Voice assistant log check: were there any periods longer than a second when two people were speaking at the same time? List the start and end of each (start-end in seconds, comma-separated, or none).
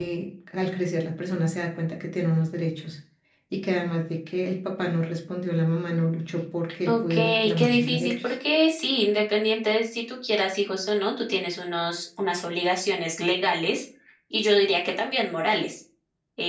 6.9-8.3